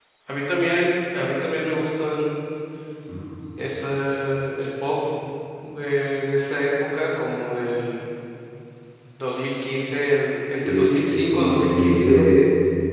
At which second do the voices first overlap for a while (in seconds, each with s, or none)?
10.5 s